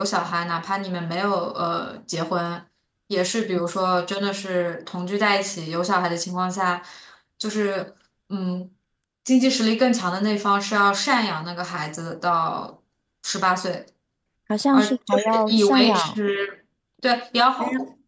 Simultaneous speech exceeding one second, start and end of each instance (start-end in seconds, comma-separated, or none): 14.7-16.2